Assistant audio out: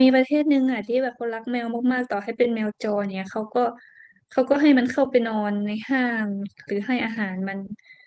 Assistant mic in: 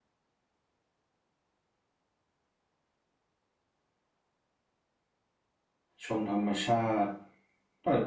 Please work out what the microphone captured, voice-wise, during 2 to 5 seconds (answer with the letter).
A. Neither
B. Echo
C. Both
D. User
A